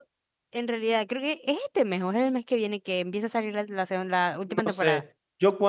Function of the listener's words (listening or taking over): taking over